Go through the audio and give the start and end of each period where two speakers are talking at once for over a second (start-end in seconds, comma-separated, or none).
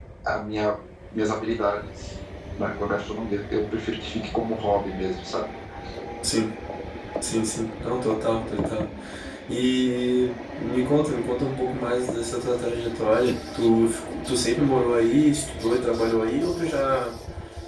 none